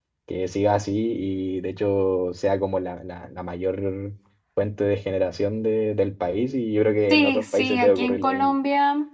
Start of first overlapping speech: 7.1 s

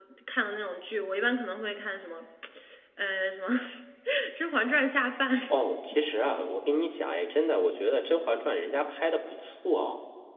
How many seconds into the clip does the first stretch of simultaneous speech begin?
none

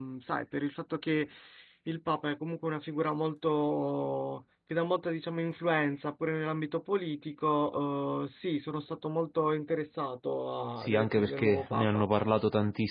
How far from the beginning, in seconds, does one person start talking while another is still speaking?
10.8 s

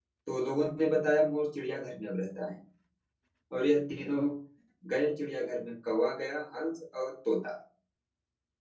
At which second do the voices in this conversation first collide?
none

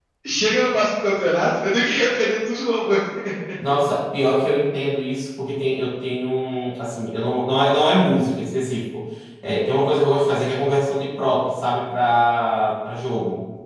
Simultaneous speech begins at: none

